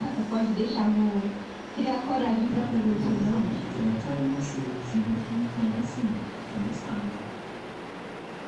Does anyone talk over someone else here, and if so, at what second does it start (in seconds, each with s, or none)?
2.2 s